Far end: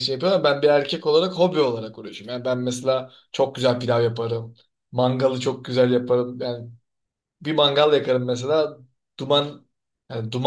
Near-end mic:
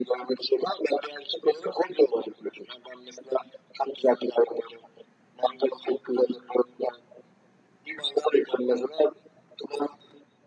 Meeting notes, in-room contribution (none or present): none